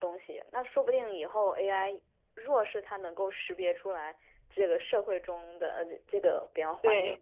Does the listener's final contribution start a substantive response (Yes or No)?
No